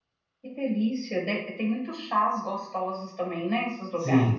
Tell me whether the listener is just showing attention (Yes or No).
No